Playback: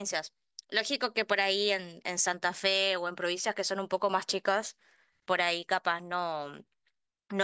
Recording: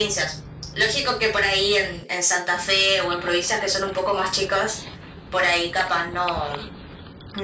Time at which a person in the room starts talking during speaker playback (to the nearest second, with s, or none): none